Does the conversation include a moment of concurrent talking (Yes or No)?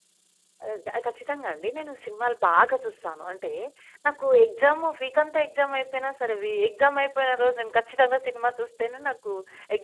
No